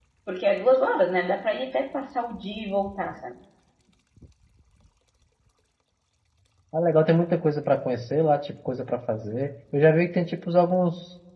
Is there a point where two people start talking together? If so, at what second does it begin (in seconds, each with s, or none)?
none